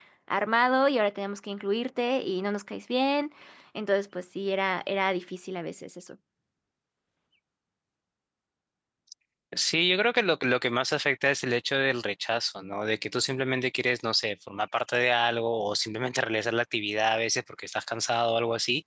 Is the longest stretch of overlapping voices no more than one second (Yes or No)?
Yes